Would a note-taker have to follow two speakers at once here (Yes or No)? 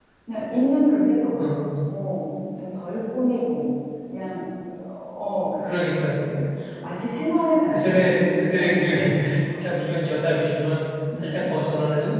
Yes